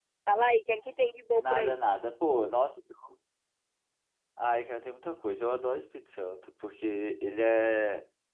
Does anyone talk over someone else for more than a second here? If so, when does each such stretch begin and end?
none

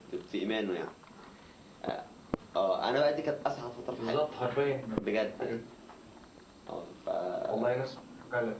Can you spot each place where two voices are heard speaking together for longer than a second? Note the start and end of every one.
none

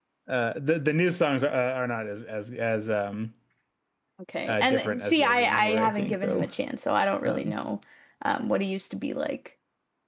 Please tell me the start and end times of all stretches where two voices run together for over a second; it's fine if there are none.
4.5-6.5

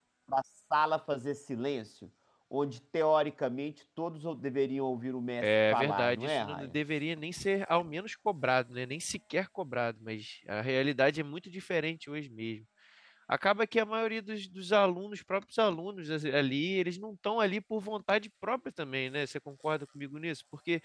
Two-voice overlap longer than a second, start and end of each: 5.4-6.8

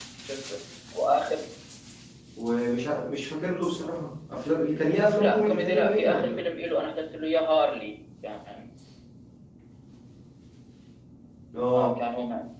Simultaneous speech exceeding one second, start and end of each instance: 5.2-6.4

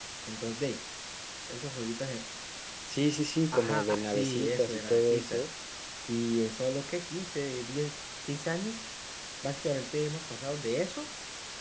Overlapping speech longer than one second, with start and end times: 3.5-5.4

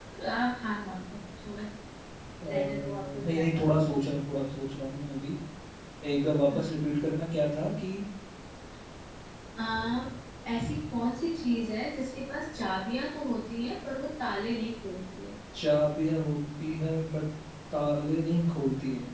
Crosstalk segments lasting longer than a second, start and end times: 2.4-3.7

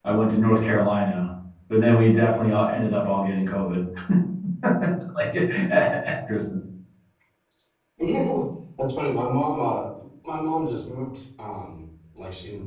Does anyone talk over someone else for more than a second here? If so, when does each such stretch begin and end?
none

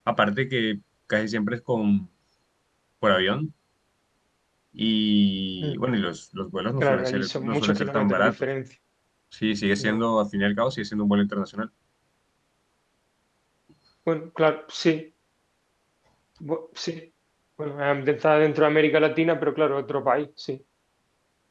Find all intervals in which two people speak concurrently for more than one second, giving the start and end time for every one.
6.8-8.4

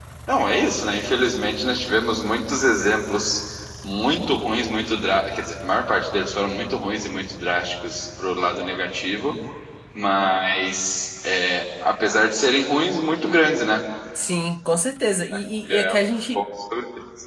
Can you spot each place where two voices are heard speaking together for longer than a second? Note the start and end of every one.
none

